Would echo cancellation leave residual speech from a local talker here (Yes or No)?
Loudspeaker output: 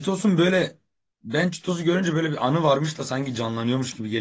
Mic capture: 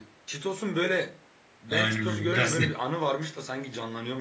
Yes